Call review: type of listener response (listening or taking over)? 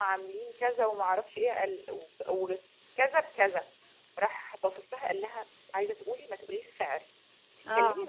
listening